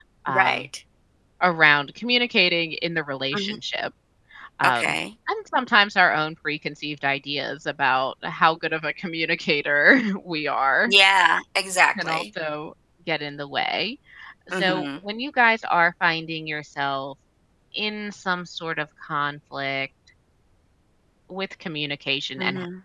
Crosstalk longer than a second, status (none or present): none